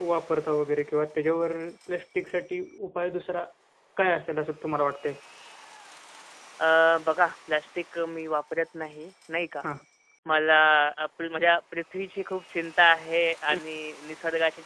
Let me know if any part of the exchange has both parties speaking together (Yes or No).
No